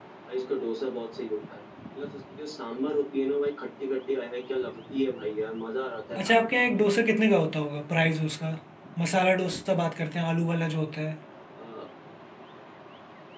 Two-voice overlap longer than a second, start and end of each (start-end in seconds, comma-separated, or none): none